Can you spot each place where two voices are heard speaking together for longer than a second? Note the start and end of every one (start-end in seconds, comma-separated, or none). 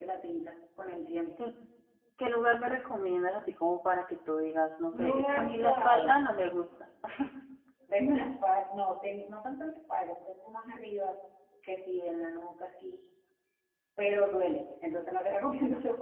4.9-6.2